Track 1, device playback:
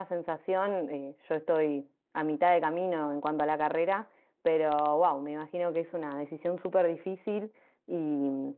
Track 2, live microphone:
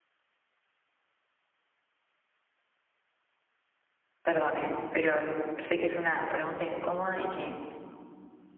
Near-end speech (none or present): present